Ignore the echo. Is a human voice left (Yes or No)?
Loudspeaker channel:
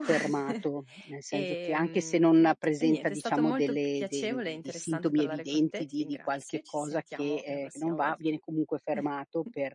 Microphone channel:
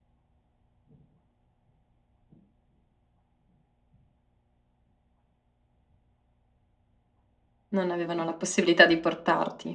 Yes